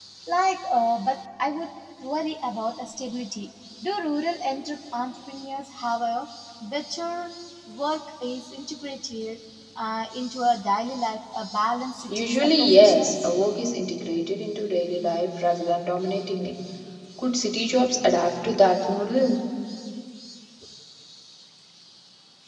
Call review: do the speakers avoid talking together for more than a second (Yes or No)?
No